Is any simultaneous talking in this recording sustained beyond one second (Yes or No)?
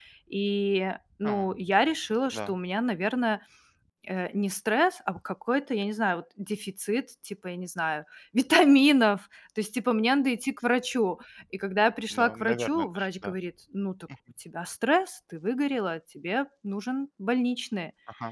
Yes